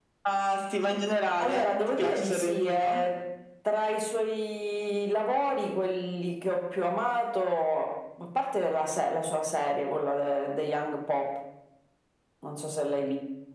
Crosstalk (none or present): present